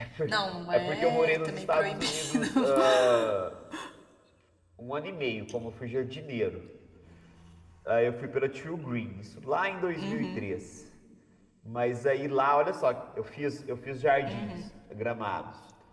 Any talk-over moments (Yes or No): Yes